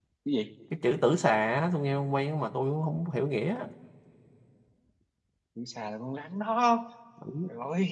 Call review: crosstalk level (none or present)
none